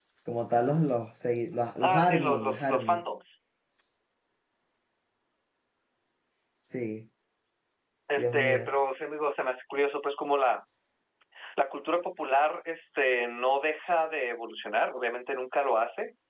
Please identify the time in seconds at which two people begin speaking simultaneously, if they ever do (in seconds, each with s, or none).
1.8 s